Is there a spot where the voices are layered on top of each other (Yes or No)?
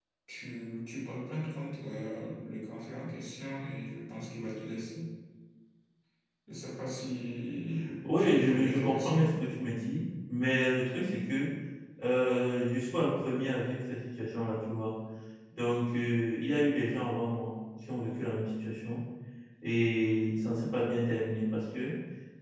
Yes